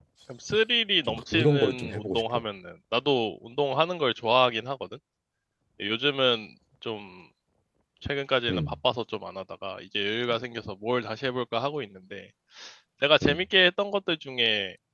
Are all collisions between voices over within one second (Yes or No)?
No